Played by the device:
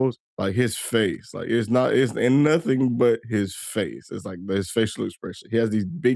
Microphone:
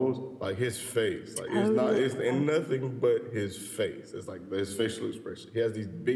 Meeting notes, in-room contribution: present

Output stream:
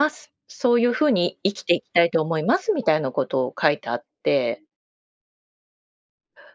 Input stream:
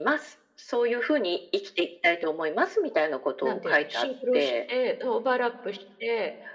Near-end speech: present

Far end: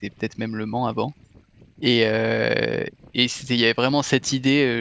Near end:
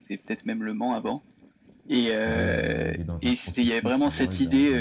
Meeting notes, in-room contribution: present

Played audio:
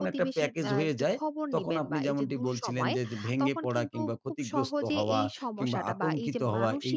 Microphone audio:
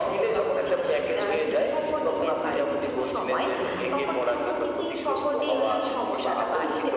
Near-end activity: present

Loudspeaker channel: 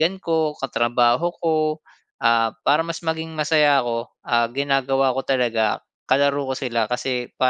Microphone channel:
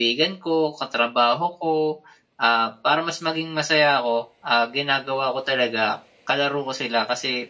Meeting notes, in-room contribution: none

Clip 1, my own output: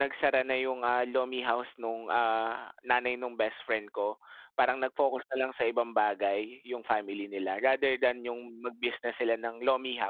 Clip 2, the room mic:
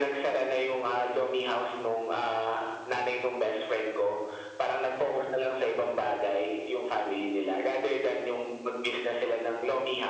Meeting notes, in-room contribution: none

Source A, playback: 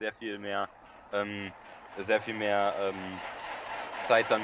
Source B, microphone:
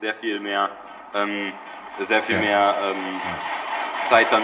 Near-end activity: present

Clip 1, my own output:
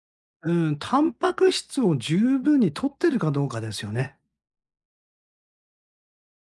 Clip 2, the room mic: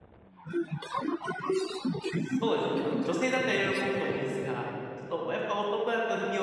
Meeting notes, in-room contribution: present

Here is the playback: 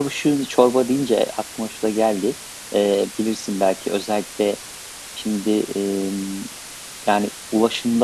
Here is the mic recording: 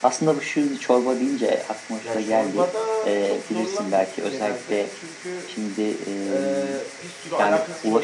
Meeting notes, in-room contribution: present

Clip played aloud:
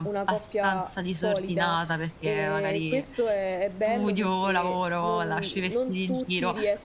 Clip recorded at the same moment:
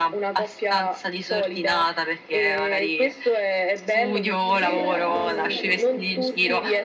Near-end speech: present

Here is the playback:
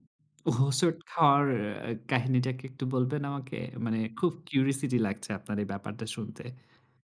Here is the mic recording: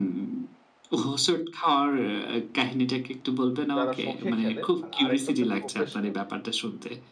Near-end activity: present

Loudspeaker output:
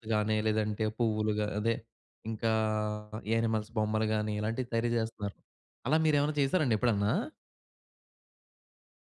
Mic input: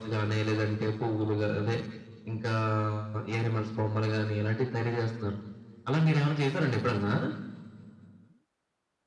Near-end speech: none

